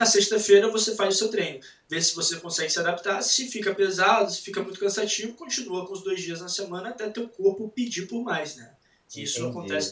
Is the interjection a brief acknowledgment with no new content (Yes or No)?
No